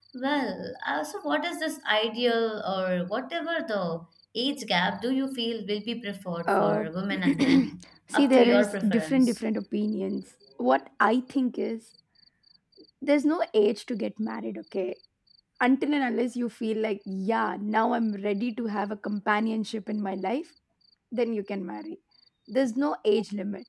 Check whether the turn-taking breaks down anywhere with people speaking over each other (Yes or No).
Yes